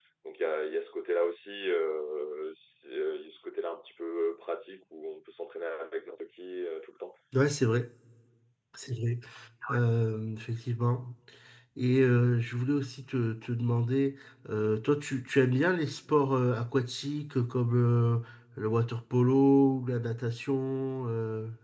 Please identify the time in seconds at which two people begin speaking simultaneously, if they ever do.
none

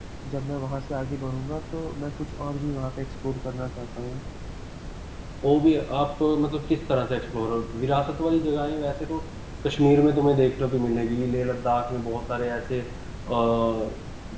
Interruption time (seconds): none

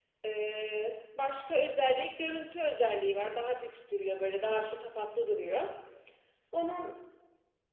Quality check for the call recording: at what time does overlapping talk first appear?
none

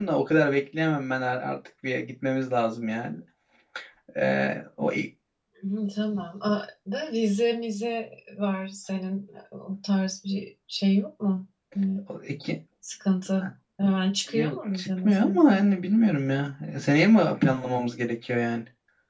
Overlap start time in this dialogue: 14.3 s

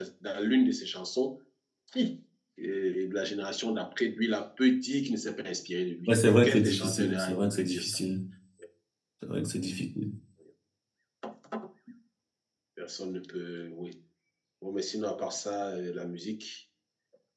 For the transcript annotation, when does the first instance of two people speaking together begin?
6.1 s

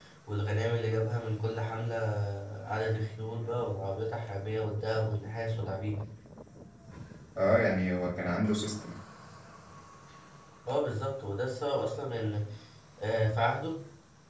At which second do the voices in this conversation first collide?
none

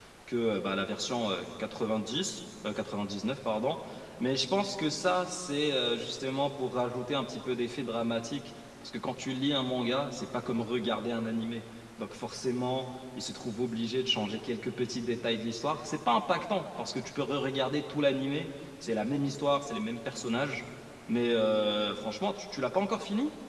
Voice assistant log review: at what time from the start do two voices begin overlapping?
none

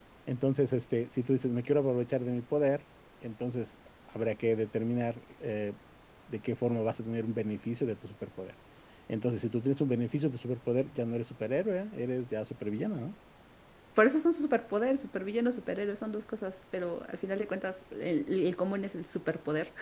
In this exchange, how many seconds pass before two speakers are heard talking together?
none

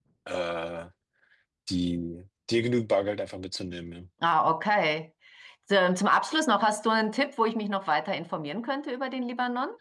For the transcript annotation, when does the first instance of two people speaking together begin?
none

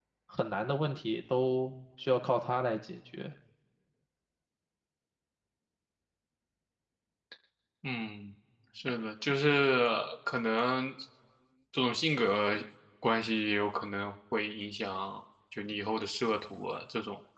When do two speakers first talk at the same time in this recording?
none

